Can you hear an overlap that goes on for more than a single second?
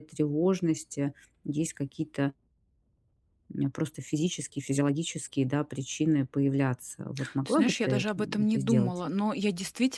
Yes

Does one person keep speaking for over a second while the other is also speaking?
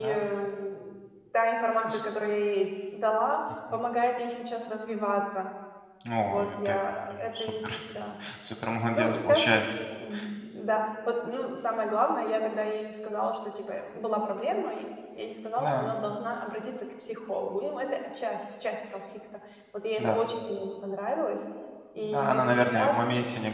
Yes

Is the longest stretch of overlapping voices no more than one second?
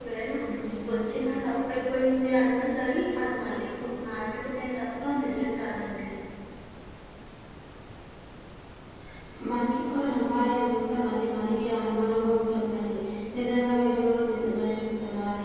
Yes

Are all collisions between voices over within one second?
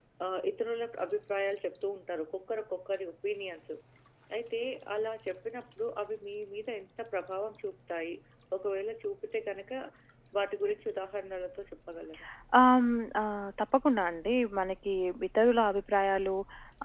Yes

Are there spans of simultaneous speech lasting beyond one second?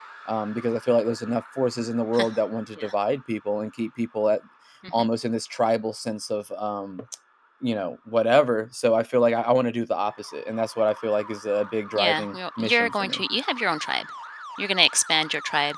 Yes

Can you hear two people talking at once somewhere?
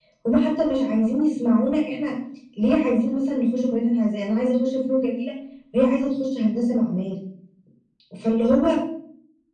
No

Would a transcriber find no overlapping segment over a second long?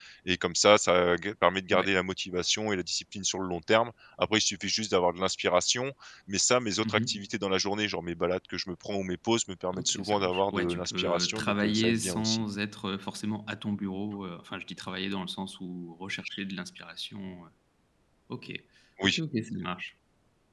No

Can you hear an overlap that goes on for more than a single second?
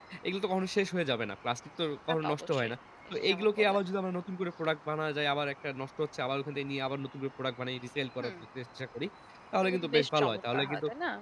Yes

